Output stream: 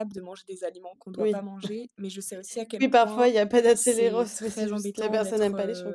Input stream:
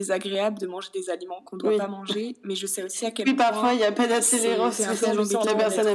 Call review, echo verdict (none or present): present